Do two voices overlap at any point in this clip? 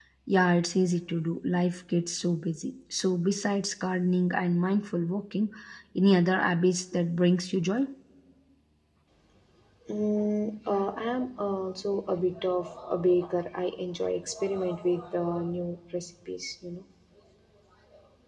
No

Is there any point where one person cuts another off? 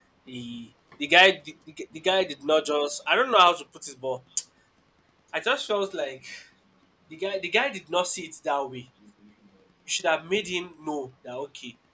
No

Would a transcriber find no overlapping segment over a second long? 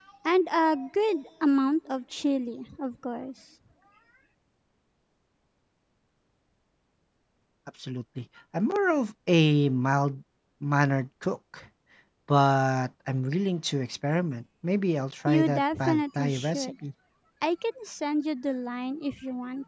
No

